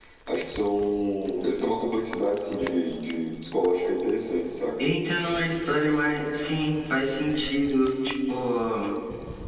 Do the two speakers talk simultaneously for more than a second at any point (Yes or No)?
No